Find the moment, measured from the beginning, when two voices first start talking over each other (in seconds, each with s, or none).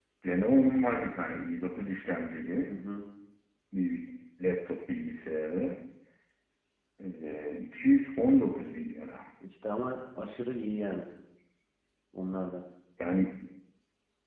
none